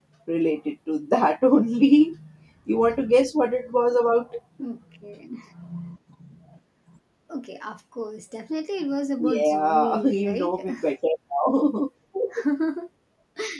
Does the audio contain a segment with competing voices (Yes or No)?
Yes